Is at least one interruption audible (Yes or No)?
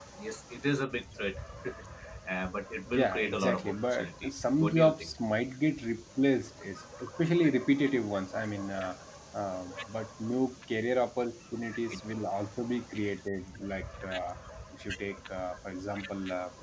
Yes